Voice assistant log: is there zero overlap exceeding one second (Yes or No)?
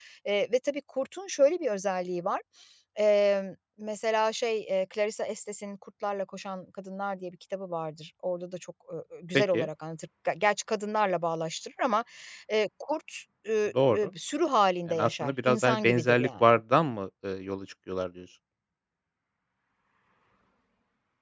No